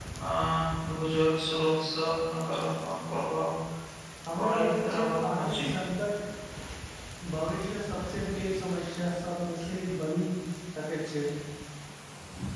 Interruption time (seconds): 4.4 s

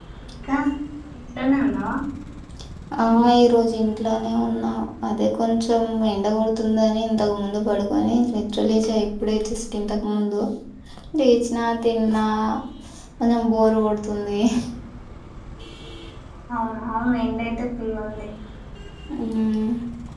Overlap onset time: none

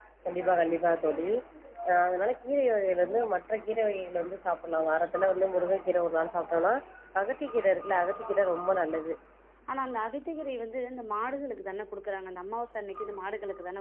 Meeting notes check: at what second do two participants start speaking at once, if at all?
none

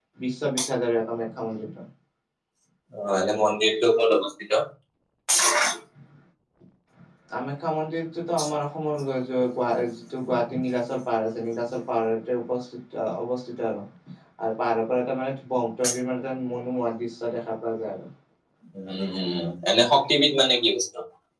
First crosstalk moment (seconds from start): none

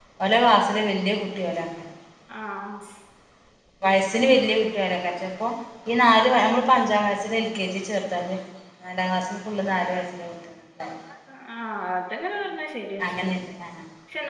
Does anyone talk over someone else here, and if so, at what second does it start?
none

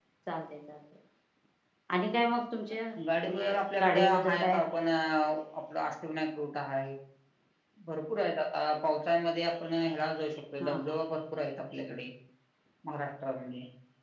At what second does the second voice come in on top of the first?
3.2 s

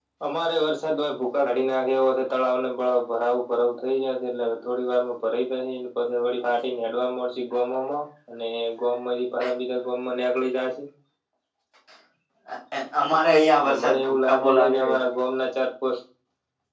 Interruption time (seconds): 13.6 s

